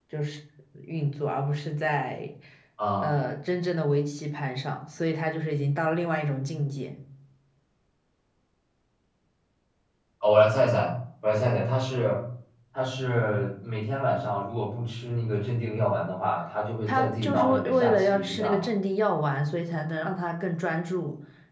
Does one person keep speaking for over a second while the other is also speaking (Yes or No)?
Yes